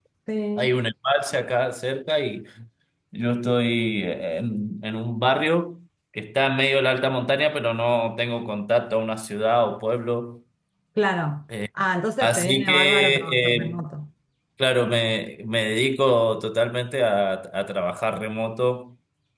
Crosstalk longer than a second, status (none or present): present